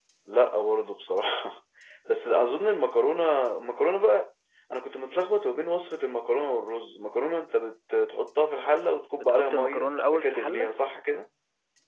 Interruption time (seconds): 9.2 s

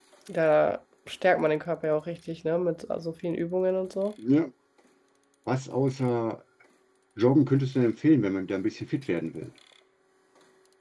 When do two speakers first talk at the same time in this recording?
none

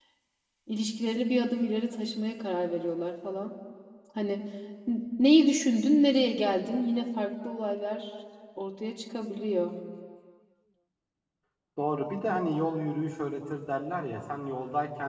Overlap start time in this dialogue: none

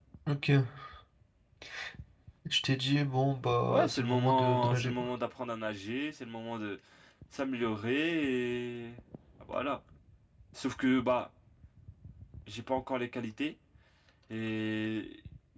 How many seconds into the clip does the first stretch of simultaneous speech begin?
3.7 s

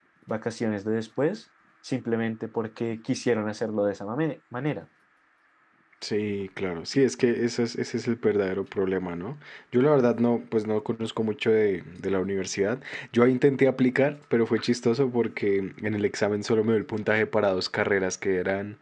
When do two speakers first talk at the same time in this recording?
none

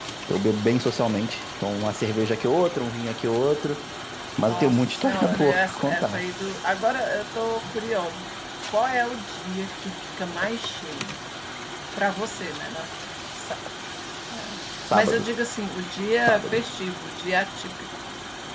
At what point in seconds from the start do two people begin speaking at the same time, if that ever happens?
4.4 s

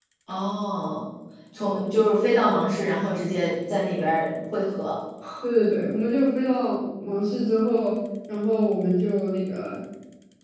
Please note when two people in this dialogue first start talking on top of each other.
none

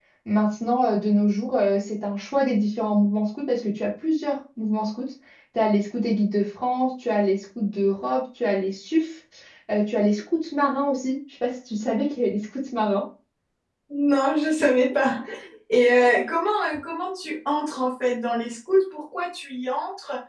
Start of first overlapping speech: none

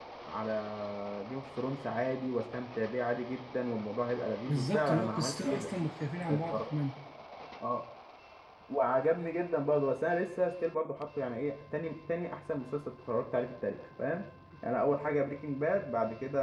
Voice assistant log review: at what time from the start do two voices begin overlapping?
4.5 s

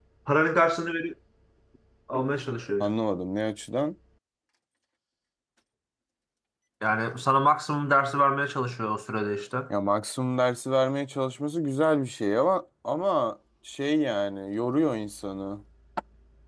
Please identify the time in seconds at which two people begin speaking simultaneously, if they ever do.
none

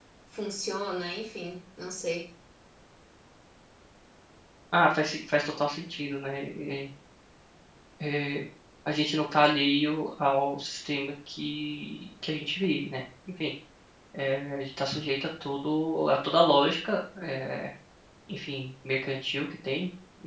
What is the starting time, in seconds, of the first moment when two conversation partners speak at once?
none

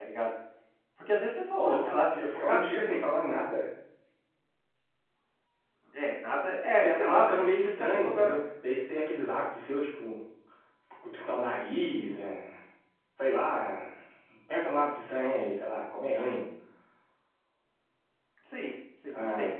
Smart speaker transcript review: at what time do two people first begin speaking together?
1.6 s

